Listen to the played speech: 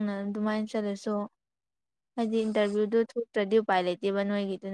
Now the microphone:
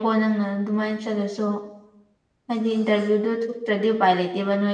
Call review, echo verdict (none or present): present